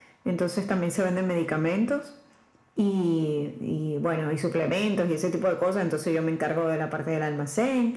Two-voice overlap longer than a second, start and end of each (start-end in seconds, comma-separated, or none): none